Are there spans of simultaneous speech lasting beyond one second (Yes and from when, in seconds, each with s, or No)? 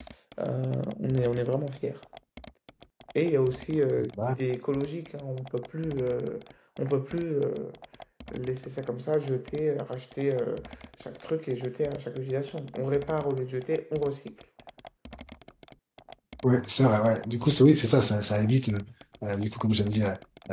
No